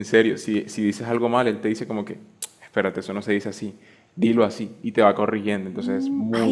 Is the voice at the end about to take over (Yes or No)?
Yes